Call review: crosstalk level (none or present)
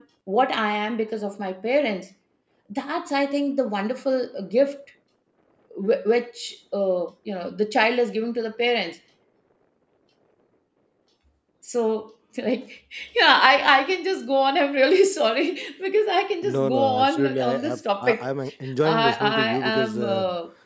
present